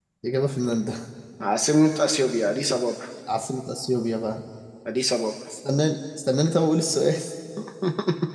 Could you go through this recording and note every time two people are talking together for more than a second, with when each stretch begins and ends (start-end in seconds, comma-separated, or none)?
none